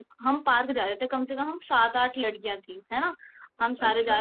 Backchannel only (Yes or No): Yes